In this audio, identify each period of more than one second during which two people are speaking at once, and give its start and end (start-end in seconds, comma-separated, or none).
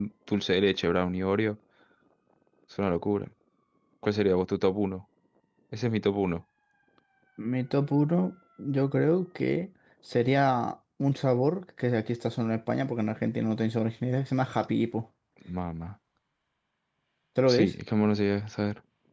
none